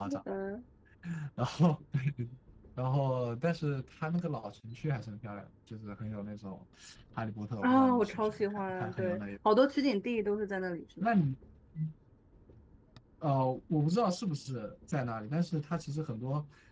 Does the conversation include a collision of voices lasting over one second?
Yes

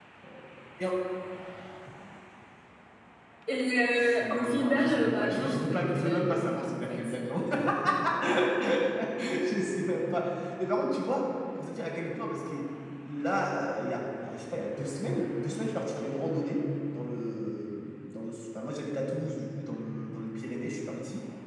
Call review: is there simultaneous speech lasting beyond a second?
Yes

